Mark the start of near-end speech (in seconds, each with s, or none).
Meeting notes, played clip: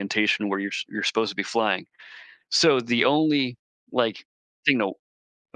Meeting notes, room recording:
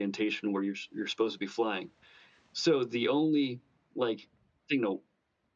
none